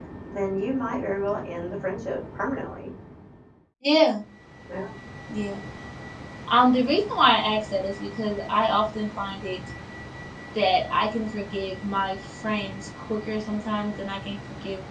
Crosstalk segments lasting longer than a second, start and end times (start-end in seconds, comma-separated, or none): none